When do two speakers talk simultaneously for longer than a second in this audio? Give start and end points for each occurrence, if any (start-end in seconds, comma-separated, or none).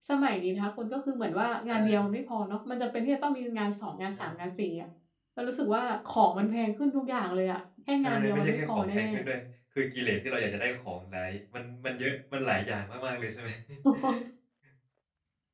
8.0-9.2